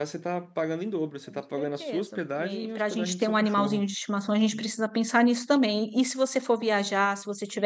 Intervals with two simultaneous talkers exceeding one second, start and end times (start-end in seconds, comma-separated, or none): 1.3-3.8